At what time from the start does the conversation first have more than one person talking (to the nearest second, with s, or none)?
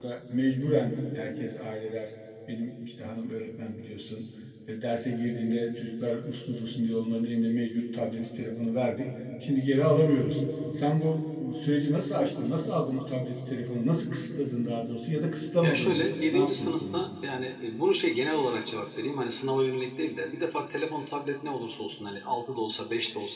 16 s